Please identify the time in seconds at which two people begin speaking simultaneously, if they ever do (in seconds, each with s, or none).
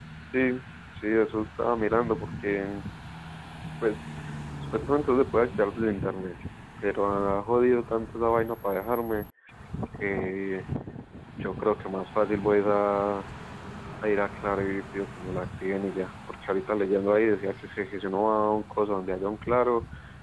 none